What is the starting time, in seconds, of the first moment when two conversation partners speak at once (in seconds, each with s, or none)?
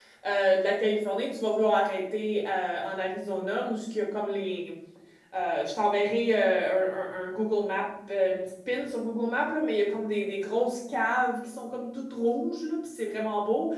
none